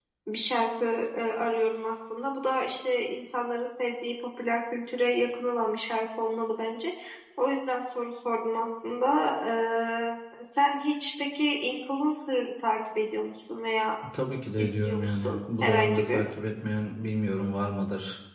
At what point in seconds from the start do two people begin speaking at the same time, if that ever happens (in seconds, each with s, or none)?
14.6 s